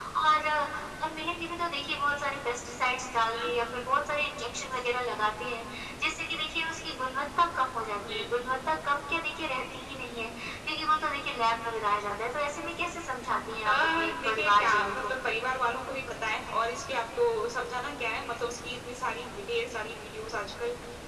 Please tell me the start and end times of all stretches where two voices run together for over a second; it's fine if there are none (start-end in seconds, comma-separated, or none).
13.5-15.2